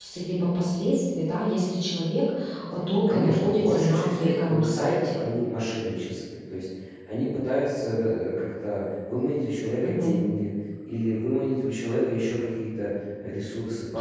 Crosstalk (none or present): present